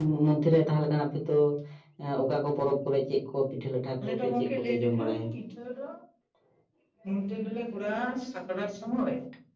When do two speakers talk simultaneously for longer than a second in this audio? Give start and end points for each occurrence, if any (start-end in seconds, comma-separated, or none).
4.0-5.2